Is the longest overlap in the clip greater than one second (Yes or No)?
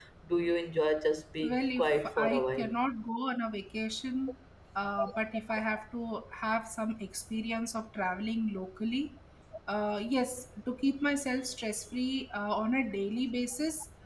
Yes